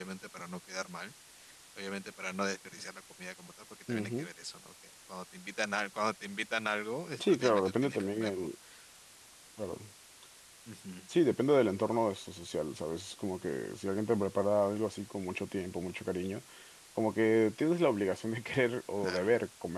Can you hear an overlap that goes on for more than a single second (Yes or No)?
Yes